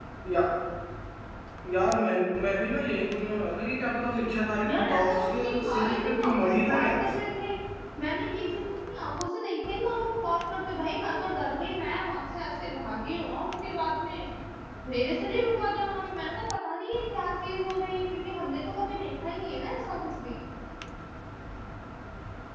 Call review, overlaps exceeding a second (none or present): present